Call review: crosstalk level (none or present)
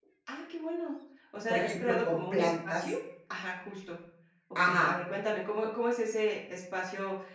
present